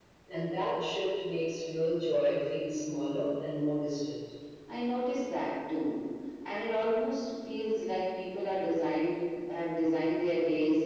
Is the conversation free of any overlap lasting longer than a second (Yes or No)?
Yes